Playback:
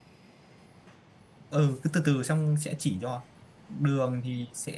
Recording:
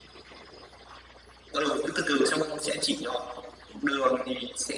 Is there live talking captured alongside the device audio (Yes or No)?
No